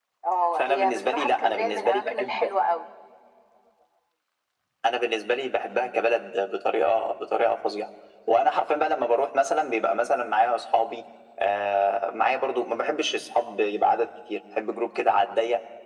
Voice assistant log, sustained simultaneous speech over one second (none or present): present